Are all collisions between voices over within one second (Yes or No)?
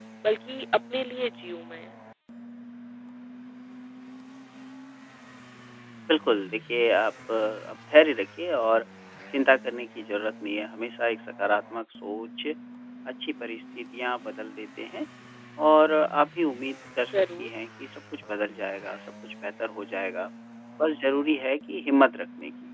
Yes